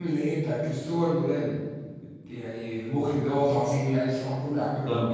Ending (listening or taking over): taking over